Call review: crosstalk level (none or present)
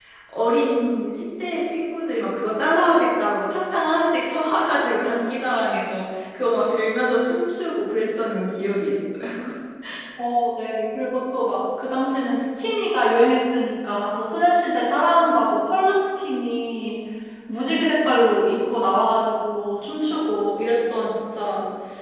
none